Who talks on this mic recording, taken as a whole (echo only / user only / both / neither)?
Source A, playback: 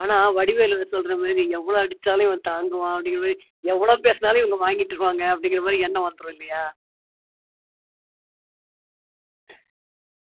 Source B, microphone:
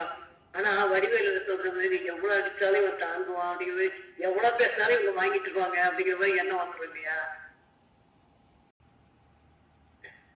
echo only